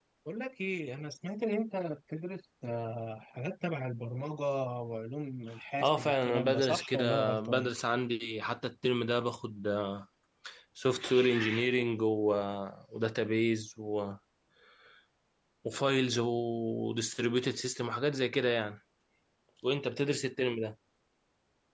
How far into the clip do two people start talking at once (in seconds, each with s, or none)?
5.8 s